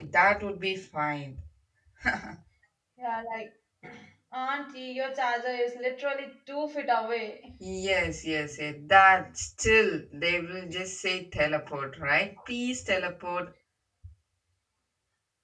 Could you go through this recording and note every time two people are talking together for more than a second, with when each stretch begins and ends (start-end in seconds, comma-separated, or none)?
none